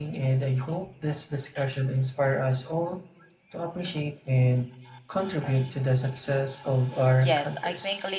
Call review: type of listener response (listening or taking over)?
taking over